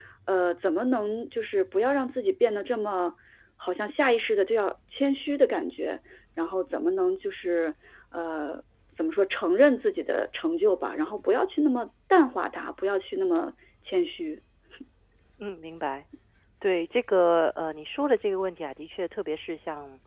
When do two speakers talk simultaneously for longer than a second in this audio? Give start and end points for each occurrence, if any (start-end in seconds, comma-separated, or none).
none